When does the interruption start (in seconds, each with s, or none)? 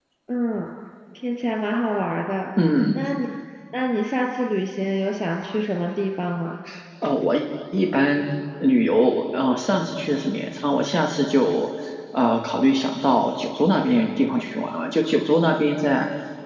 none